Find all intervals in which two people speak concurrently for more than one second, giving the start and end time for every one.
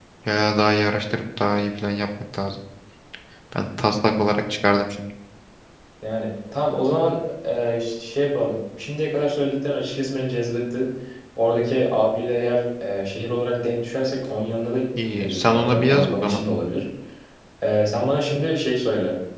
15.1-16.4

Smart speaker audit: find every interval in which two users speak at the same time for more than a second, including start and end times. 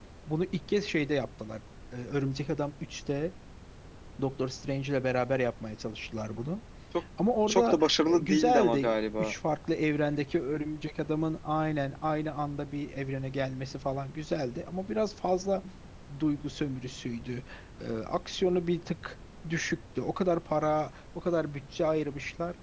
7.5-9.3

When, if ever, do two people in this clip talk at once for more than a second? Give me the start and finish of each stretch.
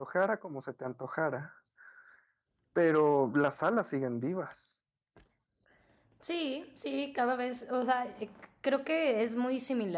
none

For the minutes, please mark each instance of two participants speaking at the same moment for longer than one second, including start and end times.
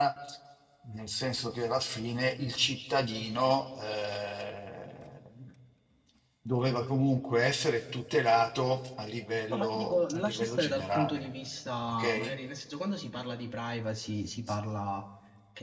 9.5-11.3

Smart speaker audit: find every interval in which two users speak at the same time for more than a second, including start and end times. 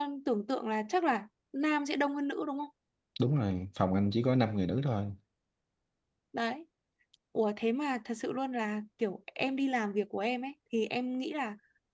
none

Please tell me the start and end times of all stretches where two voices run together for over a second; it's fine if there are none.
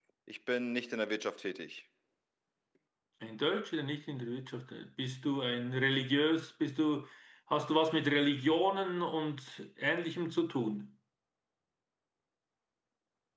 none

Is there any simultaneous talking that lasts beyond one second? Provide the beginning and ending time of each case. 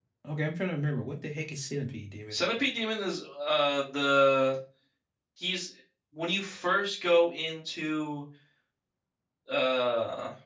none

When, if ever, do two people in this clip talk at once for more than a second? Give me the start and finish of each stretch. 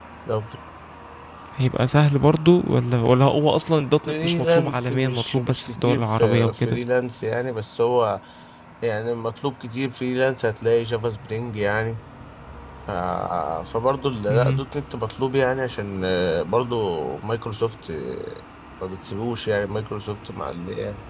4.0-6.8

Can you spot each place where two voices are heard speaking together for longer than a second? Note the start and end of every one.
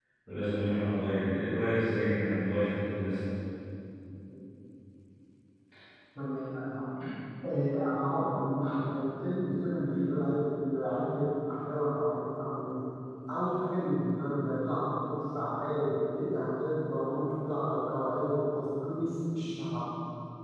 none

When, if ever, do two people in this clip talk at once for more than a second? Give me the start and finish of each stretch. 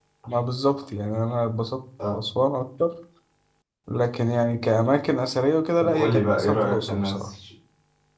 5.8-7.3

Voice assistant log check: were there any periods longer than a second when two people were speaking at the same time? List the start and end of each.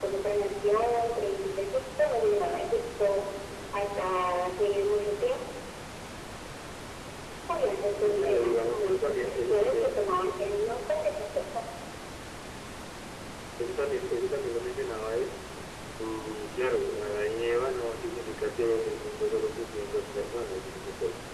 8.0-10.0

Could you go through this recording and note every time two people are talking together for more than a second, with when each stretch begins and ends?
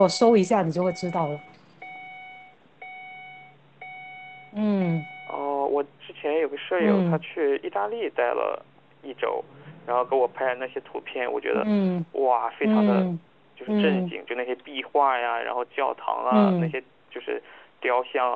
none

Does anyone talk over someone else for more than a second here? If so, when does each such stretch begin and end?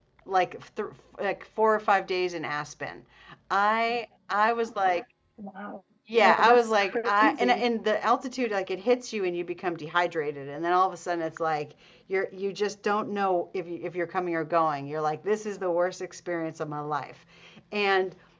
6.2-7.7

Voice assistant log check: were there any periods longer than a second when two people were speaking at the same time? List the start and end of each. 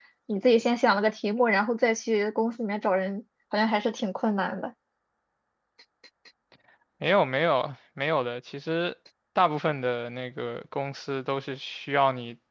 none

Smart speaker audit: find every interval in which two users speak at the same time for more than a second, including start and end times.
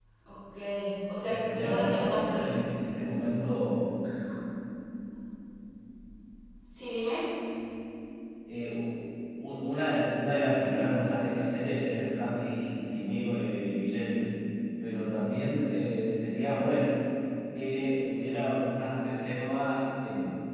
1.3-2.5

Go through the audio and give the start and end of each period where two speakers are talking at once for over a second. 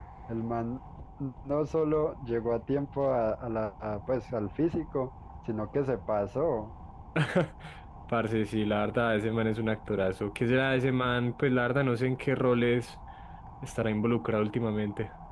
none

